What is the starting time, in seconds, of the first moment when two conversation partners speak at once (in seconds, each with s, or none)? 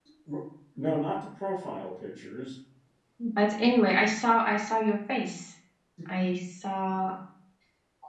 none